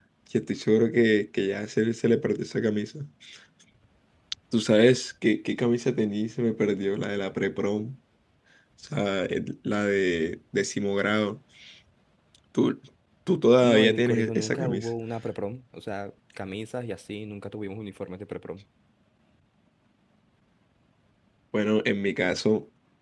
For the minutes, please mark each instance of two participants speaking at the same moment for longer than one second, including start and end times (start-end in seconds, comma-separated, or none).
13.6-14.9